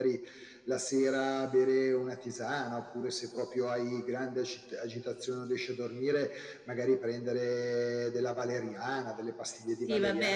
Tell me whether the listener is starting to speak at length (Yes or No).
Yes